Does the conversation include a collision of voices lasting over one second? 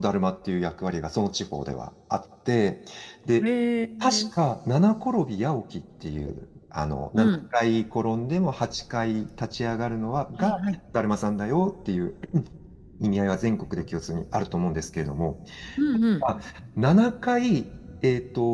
No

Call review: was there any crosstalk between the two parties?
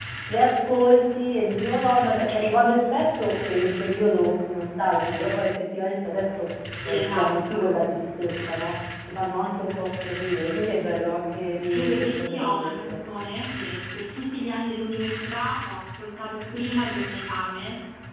Yes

